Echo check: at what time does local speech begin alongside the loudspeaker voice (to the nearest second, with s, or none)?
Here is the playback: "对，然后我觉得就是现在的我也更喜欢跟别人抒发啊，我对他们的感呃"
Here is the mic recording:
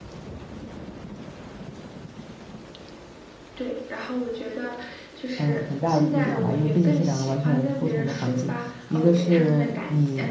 5 s